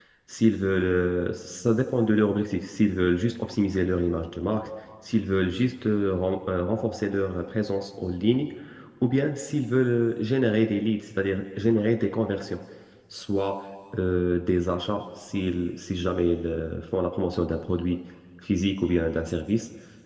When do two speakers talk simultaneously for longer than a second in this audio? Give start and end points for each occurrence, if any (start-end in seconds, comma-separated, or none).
none